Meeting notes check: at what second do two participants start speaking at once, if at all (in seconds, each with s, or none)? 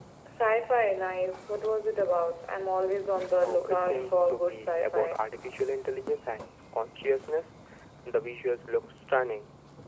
3.3 s